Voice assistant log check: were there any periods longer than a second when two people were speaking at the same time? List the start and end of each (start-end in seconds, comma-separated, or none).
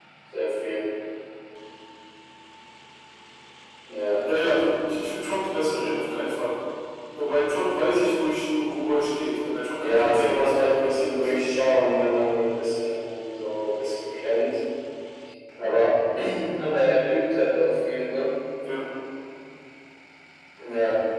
9.8-11.3